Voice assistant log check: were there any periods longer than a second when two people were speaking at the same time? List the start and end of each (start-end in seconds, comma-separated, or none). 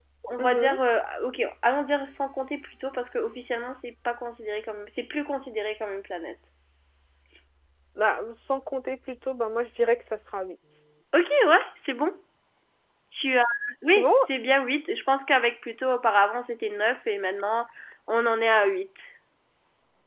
none